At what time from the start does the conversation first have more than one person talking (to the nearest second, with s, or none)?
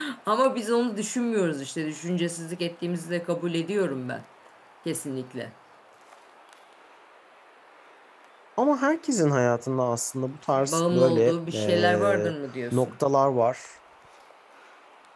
11 s